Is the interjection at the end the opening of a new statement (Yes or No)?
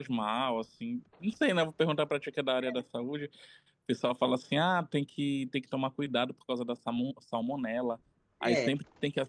No